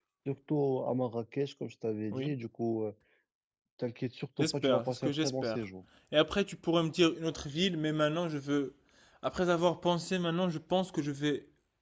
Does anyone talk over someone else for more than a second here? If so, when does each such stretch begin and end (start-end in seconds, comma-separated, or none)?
4.4-5.6